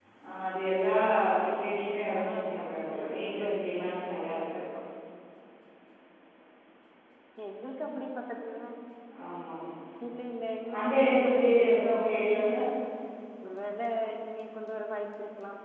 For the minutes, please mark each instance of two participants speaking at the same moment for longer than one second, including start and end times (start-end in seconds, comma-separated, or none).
2.1-4.4, 10.8-12.6